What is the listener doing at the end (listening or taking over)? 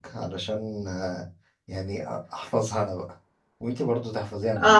taking over